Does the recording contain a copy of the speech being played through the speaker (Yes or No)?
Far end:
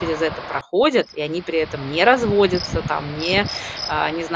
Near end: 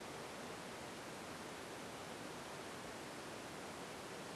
No